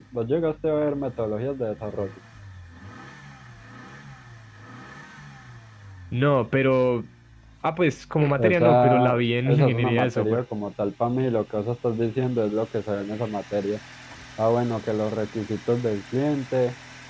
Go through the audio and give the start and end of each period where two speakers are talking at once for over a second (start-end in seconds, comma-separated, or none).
8.2-10.4